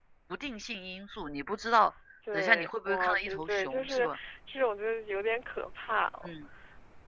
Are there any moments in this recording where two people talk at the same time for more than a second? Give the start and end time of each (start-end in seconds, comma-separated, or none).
2.3-4.1